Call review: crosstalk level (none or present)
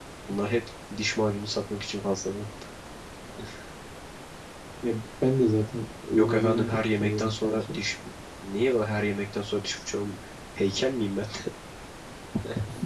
present